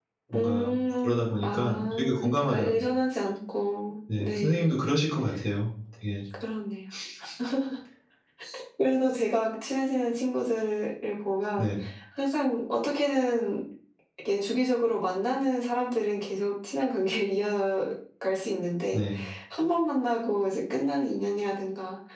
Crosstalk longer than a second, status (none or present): present